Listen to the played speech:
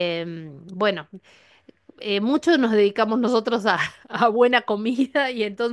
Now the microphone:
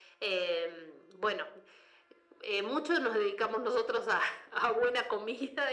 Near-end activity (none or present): none